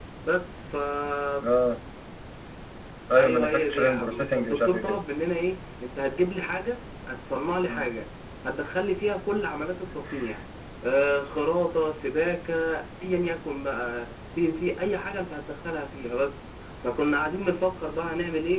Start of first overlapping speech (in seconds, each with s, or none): 3.1 s